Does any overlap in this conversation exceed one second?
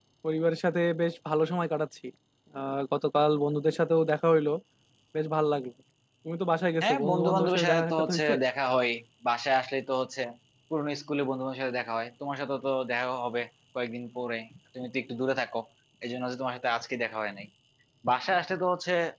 Yes, from 6.8 s

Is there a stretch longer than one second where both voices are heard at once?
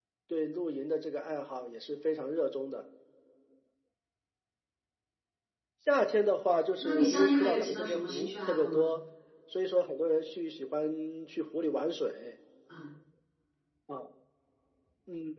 Yes, from 6.8 s

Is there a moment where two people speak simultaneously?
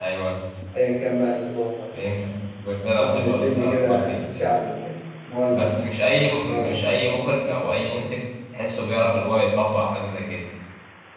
Yes, from 3.0 s

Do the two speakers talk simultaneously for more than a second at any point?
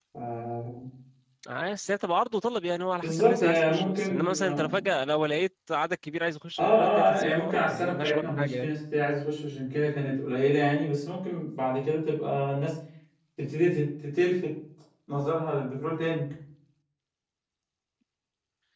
Yes, from 3.0 s

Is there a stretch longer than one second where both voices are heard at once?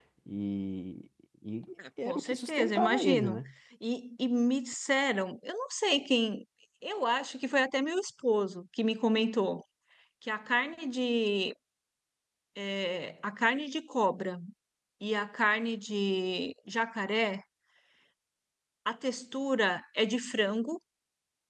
Yes, from 2.0 s

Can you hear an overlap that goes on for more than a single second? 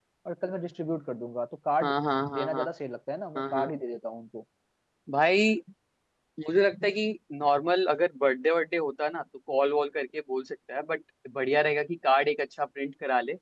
No

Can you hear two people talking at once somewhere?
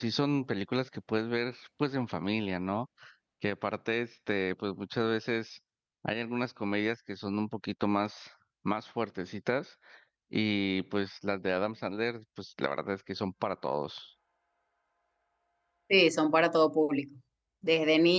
No

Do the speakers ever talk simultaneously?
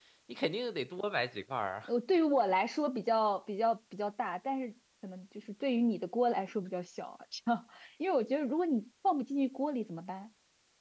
No

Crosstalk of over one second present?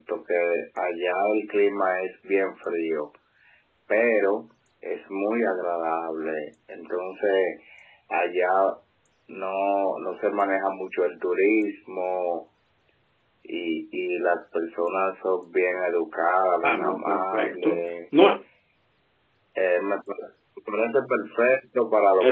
Yes, from 16.6 s

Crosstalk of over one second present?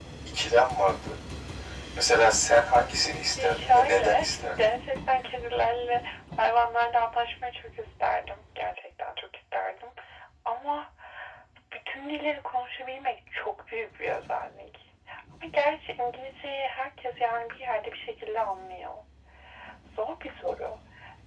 Yes, from 3.4 s

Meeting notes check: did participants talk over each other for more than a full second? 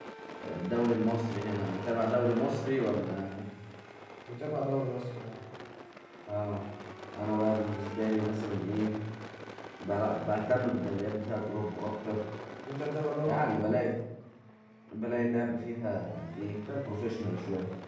No

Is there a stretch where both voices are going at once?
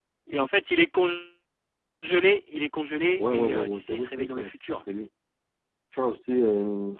Yes, from 3.1 s

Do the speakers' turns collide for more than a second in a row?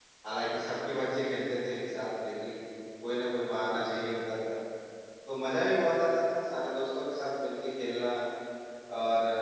No

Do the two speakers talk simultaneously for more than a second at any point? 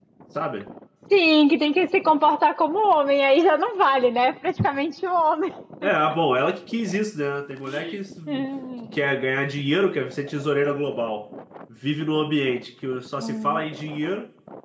No

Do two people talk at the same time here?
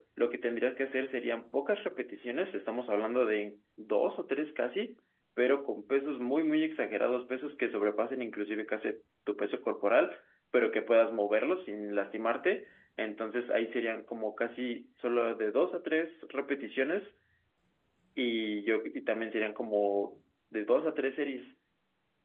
No

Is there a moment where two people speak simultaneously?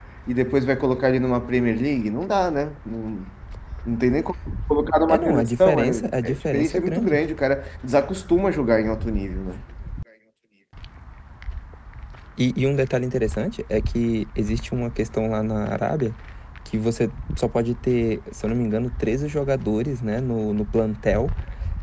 Yes, from 5.1 s

